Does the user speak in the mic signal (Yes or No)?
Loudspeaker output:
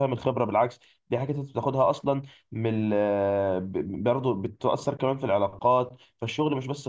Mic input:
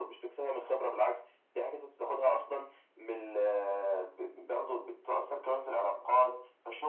No